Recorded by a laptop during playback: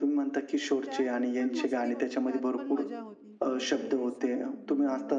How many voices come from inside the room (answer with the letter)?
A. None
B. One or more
B